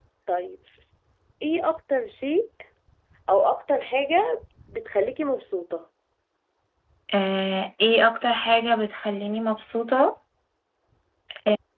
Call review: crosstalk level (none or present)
none